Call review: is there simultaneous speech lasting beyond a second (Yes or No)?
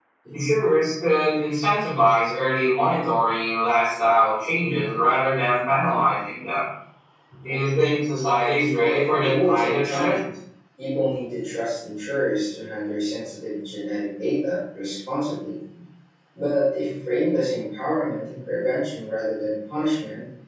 Yes